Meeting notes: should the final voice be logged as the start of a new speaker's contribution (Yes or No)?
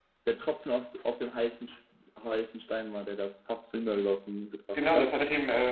Yes